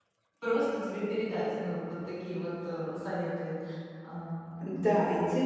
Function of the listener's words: taking over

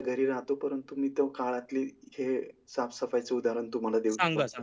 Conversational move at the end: taking over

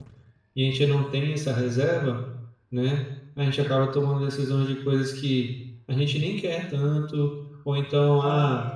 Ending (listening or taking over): listening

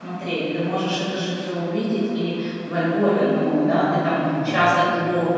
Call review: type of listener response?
listening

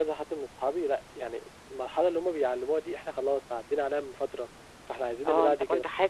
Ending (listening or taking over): taking over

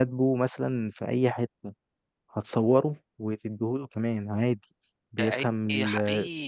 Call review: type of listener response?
taking over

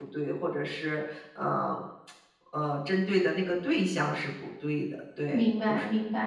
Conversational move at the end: taking over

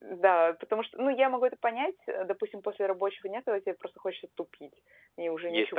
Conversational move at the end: taking over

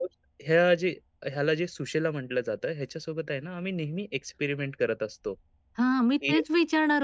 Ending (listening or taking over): taking over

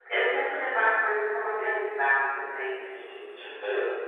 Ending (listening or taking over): taking over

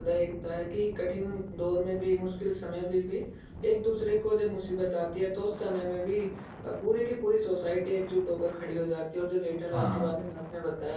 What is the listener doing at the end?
listening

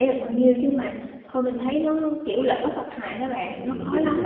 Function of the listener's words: taking over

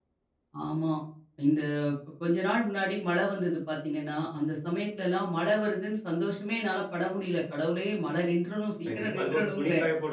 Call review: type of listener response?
taking over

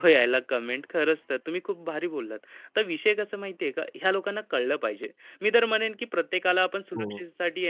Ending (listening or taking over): listening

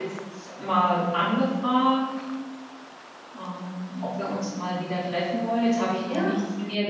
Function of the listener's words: listening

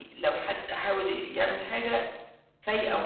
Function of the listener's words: listening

